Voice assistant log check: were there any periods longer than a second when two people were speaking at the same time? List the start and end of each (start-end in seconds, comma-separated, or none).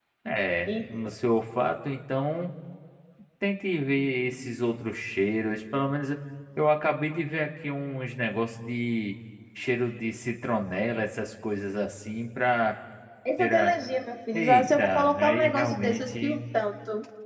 14.3-16.4